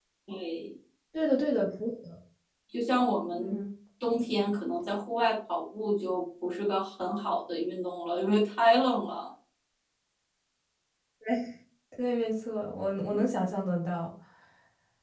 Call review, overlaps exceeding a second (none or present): none